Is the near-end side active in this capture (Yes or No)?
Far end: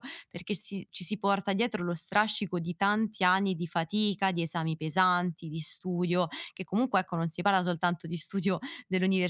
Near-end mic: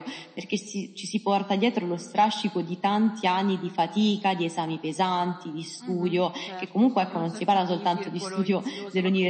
Yes